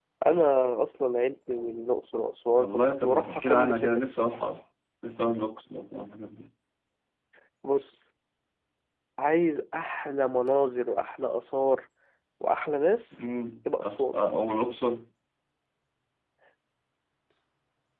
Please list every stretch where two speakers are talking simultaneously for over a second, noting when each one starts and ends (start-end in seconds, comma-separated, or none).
2.6-4.0